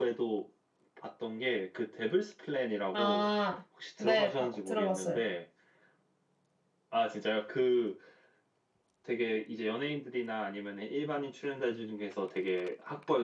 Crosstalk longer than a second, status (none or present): present